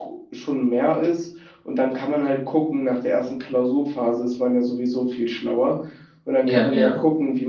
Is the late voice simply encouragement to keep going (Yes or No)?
Yes